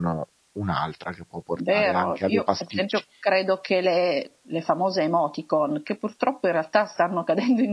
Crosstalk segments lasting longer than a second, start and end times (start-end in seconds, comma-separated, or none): 1.7-3.0